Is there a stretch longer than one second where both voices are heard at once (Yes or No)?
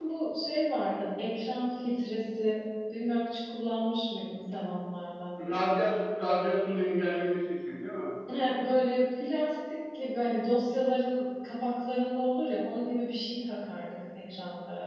No